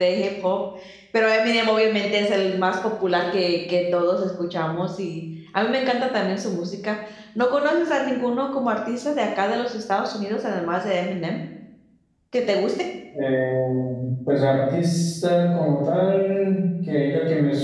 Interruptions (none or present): none